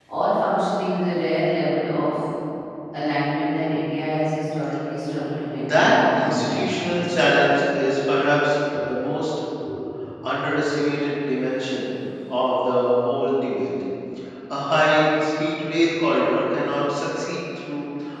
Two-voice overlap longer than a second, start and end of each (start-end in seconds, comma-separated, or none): 5.7-7.2